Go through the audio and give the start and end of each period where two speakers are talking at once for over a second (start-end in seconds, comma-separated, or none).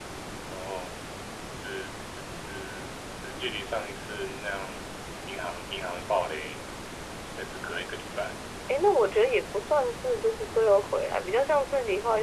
none